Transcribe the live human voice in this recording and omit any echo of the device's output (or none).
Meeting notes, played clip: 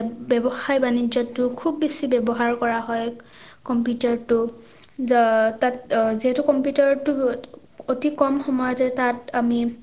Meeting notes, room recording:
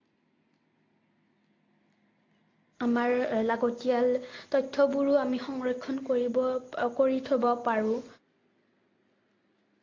আমাৰ লাগতিয়াল তথ্যবোৰো আমি সংৰক্ষণ কৰিব কৰি থ'ব পাৰোঁ।